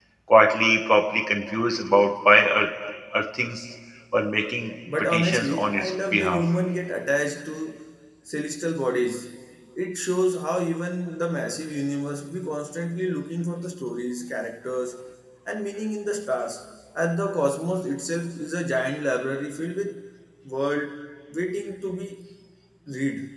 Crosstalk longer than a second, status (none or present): present